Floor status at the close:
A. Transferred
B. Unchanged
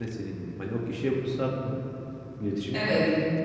B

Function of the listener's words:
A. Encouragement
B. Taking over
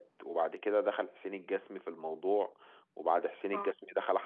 A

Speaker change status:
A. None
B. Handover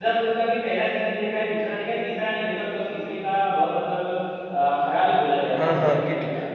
B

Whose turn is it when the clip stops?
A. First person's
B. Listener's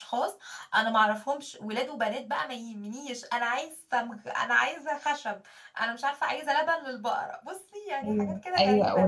B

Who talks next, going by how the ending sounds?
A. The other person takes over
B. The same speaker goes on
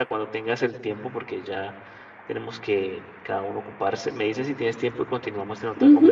A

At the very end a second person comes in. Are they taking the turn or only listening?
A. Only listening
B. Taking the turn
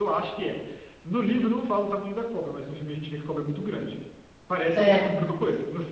A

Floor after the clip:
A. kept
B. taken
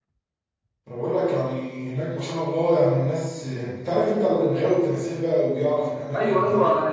B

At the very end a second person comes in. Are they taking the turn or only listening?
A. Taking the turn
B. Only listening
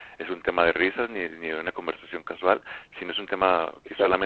B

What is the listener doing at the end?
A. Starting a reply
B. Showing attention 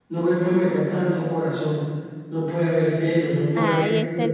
A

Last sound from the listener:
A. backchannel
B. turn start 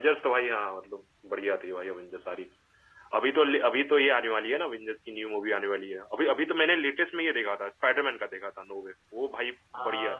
B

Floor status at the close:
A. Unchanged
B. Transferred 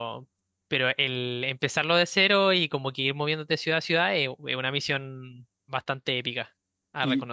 B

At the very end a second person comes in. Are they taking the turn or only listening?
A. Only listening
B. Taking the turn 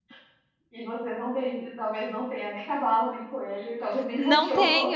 B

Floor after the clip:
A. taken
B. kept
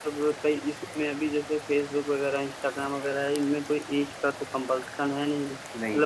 B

